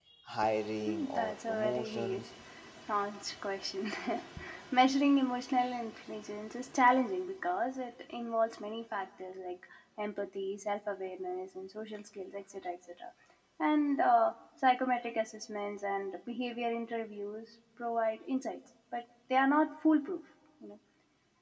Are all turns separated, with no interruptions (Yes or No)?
No